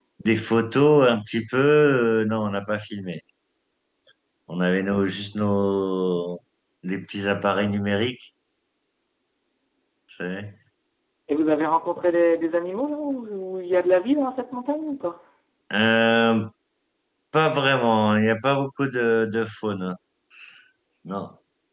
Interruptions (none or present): none